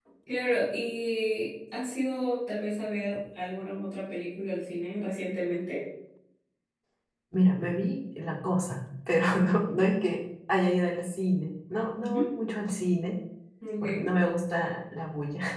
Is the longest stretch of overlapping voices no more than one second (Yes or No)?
Yes